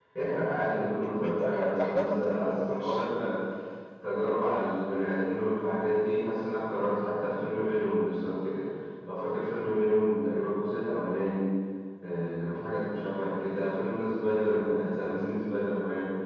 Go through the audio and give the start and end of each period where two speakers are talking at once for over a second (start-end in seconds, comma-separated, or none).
0.8-3.1